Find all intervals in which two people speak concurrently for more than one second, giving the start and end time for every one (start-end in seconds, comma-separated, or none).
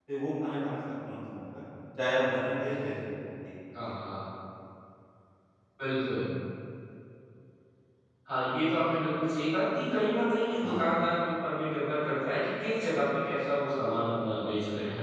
none